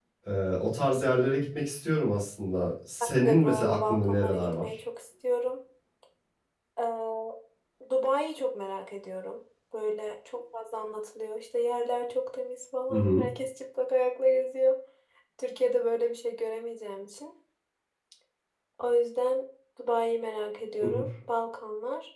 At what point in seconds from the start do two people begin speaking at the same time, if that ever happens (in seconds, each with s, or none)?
3.0 s